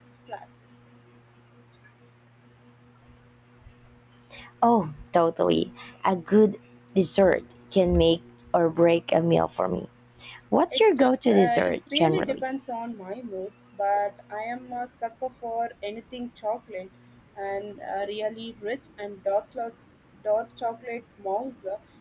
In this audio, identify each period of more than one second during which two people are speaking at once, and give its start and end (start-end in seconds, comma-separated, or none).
10.7-12.4